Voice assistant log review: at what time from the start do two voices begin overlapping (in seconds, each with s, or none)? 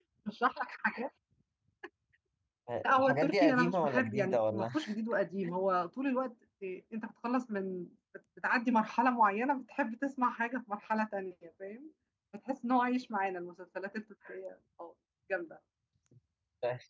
2.9 s